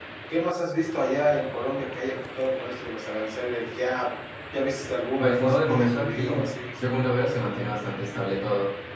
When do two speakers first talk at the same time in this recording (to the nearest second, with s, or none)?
5 s